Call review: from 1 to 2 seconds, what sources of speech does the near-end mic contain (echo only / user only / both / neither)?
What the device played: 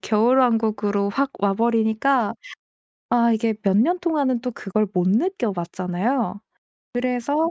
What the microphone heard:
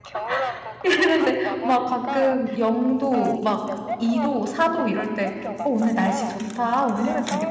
both